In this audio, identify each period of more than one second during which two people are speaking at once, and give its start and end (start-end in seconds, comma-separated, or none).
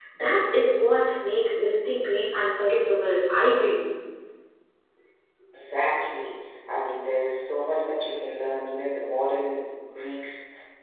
none